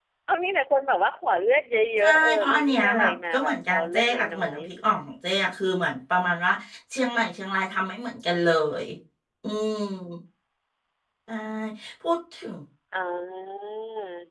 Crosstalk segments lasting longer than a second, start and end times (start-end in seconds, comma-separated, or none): 2.0-4.6